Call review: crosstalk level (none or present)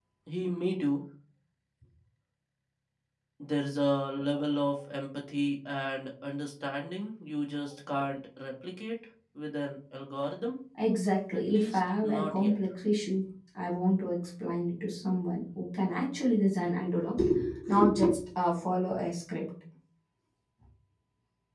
present